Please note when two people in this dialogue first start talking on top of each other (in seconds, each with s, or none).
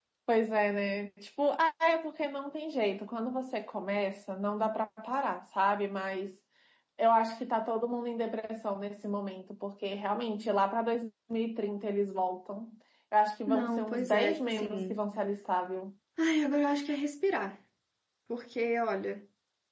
13.5 s